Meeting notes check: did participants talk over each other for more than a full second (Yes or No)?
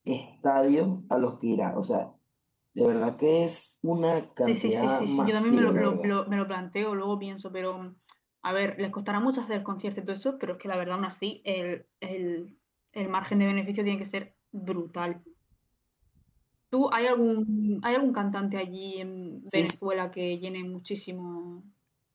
Yes